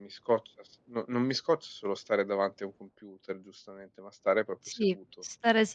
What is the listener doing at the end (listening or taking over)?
taking over